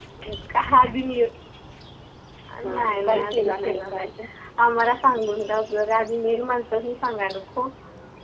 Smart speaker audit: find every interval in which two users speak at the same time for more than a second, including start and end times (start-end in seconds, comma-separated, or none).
2.7-4.1